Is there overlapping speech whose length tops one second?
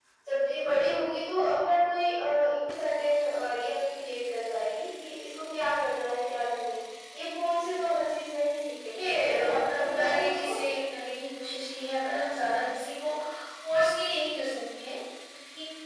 Yes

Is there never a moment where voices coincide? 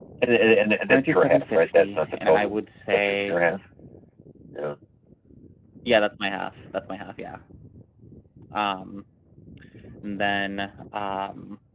No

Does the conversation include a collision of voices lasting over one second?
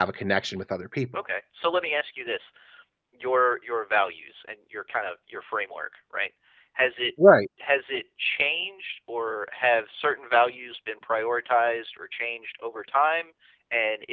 No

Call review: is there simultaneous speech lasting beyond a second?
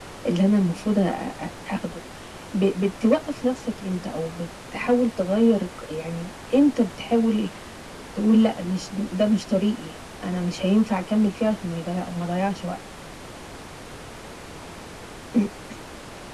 No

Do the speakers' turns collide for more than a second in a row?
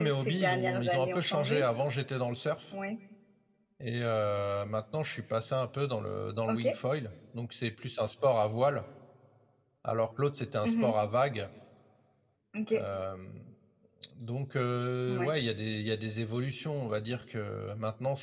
Yes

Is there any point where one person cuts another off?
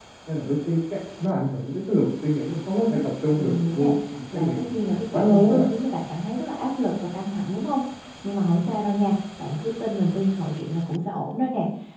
Yes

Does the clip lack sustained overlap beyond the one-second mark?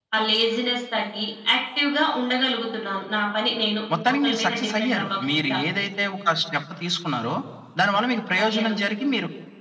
No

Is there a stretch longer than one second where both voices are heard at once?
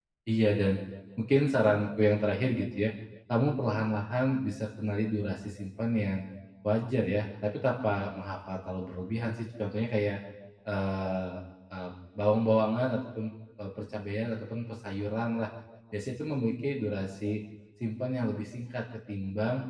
No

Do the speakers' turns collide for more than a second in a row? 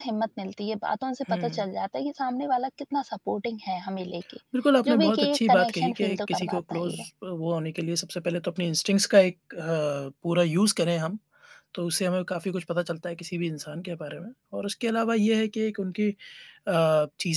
Yes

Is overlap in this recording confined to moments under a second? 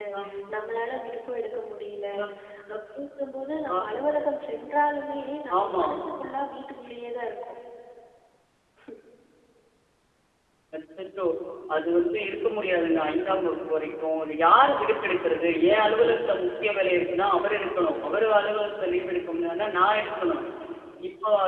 Yes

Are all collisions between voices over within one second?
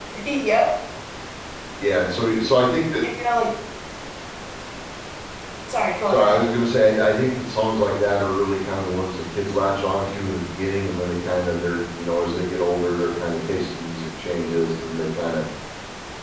Yes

